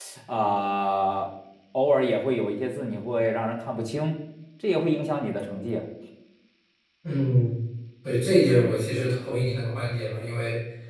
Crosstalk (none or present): none